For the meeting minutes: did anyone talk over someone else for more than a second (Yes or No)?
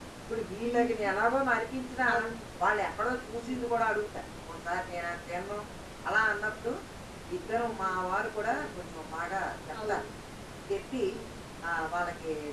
No